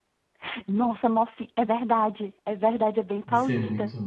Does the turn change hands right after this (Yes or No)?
Yes